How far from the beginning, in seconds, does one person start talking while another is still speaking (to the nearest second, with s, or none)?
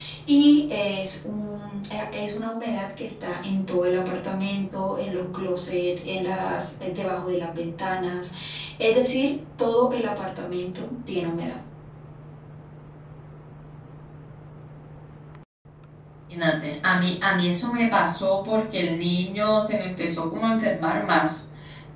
none